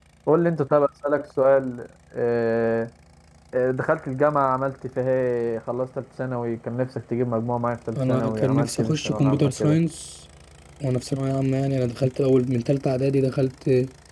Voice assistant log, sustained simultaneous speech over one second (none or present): present